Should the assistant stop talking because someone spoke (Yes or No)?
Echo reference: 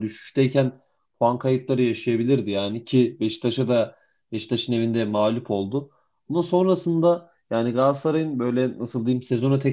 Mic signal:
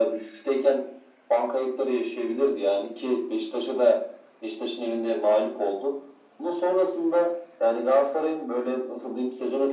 No